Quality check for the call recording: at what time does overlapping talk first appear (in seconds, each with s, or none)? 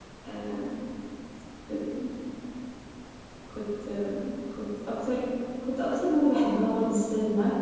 none